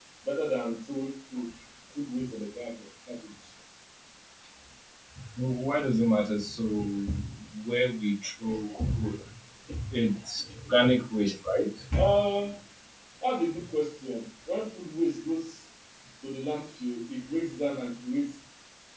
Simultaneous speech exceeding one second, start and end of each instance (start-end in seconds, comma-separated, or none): none